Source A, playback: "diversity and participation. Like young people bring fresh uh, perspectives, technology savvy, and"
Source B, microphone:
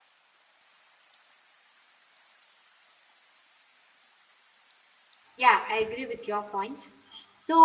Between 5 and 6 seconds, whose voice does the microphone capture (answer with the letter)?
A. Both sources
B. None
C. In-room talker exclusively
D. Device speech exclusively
C